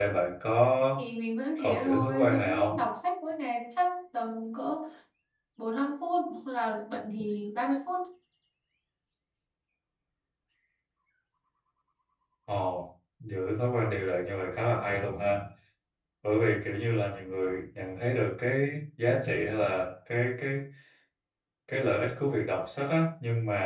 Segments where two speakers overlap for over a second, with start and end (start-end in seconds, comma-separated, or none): 1.6-2.9